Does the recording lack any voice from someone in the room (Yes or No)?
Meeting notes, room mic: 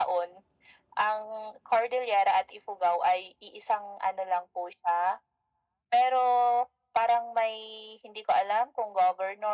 Yes